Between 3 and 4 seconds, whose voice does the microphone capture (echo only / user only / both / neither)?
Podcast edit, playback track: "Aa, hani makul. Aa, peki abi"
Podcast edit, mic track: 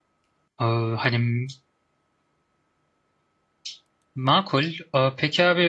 neither